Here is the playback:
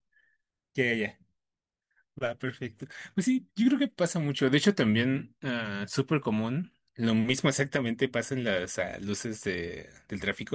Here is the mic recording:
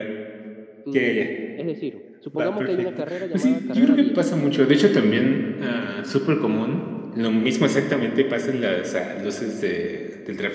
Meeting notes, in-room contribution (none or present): present